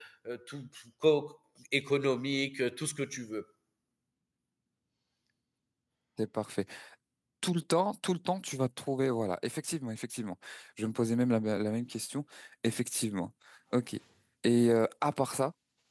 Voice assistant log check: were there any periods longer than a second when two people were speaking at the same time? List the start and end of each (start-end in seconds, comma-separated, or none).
none